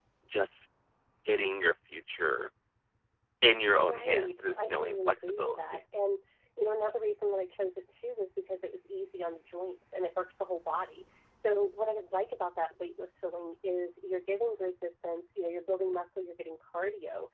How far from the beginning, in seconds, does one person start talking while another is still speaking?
3.9 s

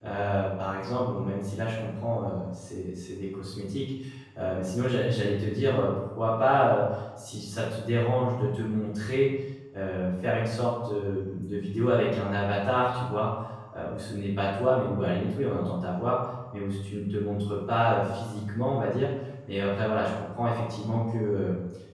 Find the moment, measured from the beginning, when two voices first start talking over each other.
none

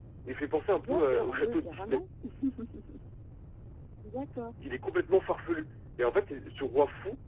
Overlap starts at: 0.8 s

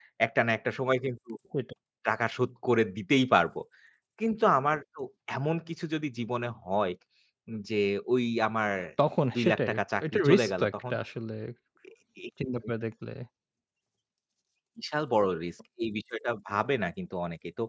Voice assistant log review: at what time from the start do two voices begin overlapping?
9.3 s

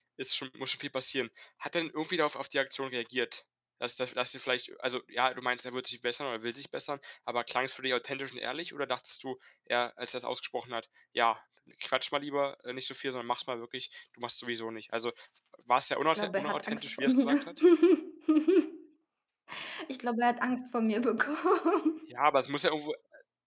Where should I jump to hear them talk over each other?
16.0 s

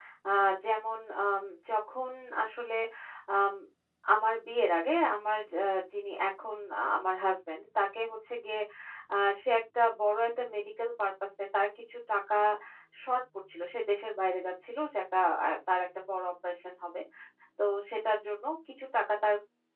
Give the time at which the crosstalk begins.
none

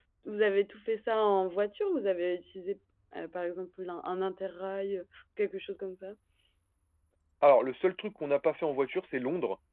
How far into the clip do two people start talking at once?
none

